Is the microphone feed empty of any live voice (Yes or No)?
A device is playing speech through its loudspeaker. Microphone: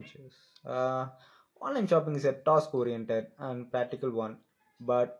No